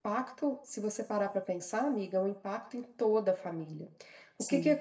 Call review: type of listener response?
listening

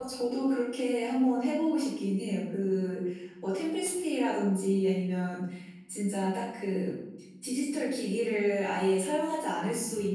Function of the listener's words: listening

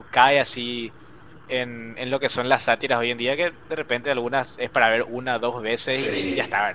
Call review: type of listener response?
listening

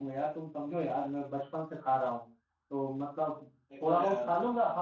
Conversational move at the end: listening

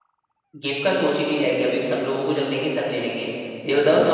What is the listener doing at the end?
listening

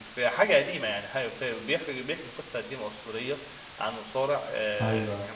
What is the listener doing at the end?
listening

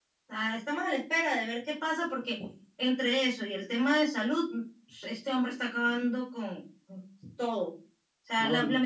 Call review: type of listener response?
listening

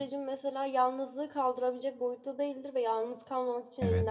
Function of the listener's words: listening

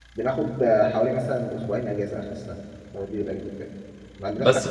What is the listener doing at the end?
listening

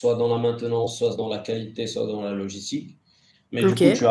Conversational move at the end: listening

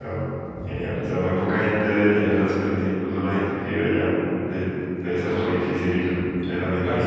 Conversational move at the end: taking over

